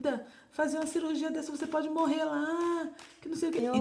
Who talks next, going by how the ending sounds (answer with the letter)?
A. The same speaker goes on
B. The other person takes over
A